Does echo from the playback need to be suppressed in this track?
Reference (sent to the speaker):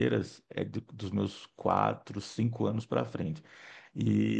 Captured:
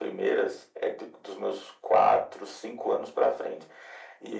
Yes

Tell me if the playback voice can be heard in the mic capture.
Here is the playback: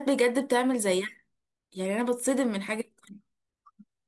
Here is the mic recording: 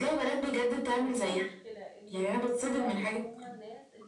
Yes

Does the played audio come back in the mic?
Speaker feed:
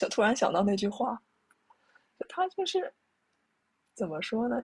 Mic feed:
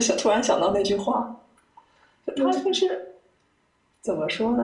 Yes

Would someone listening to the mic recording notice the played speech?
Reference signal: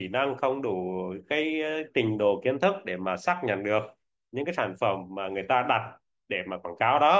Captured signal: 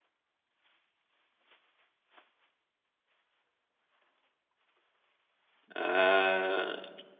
No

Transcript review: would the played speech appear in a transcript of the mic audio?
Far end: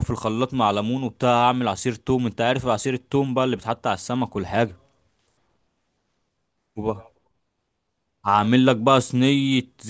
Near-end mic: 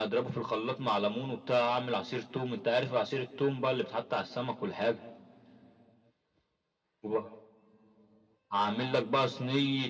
Yes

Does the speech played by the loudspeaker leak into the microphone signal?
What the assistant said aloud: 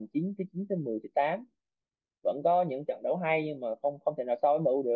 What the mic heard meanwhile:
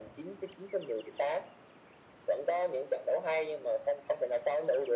Yes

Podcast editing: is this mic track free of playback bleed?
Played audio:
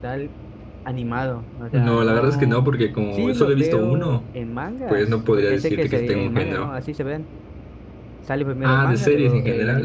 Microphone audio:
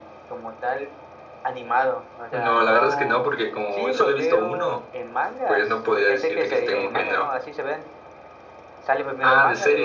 No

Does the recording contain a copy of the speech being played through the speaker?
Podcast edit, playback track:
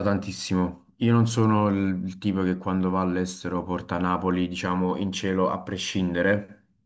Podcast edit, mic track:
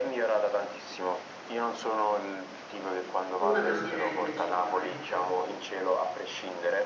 Yes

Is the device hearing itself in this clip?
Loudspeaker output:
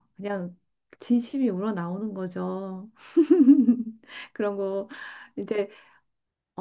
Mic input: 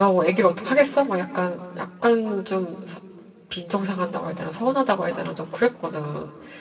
No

